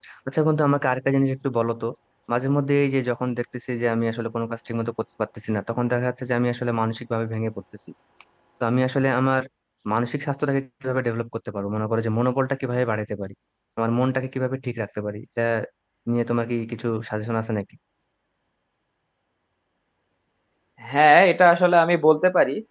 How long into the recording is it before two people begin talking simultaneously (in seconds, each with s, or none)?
none